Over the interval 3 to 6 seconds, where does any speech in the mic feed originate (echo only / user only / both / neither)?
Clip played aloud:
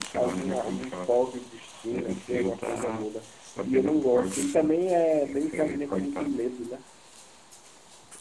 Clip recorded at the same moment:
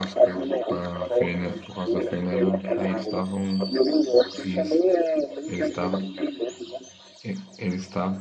both